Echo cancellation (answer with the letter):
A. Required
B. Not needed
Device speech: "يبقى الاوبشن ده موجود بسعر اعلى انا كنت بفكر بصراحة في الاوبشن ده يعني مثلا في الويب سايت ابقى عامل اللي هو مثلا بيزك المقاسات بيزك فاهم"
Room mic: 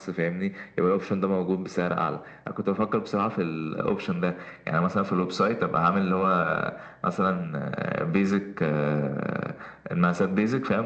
A